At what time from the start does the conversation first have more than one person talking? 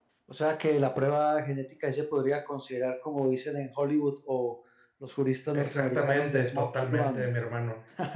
5.5 s

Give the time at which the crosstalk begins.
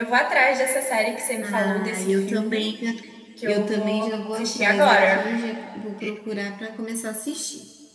1.4 s

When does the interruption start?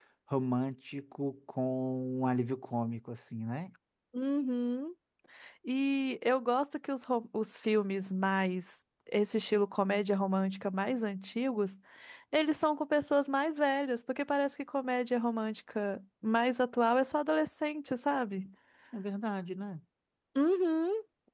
none

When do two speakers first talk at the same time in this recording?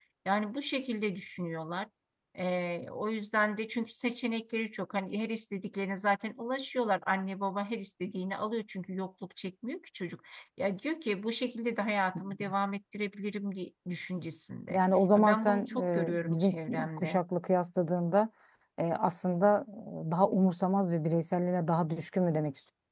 15.2 s

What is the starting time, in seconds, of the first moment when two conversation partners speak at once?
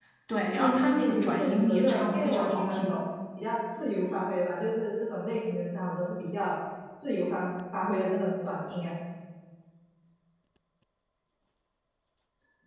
0.6 s

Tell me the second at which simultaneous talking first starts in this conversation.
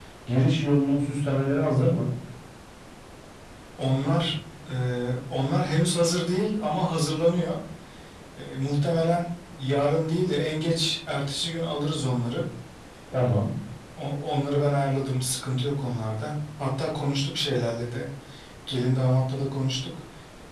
none

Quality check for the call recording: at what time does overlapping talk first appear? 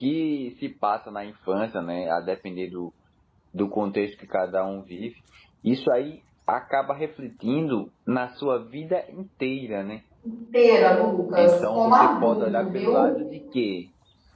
11.4 s

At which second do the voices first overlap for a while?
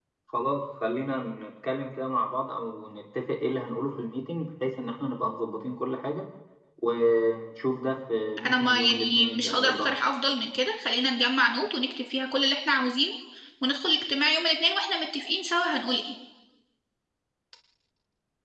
8.4 s

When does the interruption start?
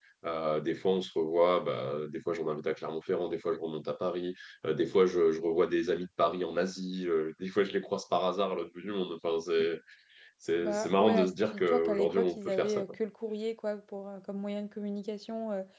10.6 s

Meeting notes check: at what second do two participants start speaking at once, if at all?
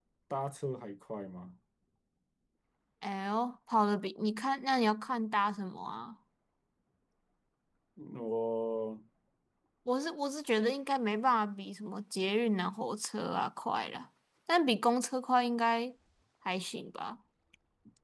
none

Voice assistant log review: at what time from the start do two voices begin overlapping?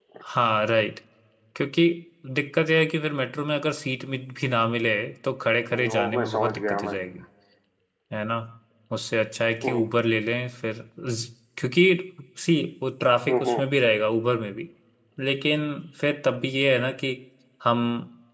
5.7 s

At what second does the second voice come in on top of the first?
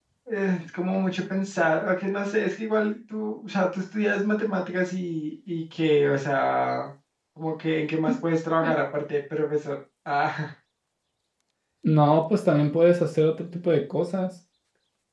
none

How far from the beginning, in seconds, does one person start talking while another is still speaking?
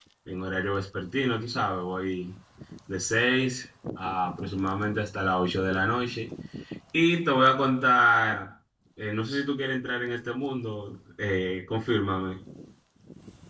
none

